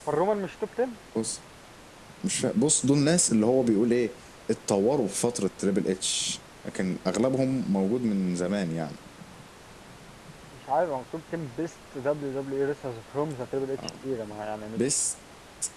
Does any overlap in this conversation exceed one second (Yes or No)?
No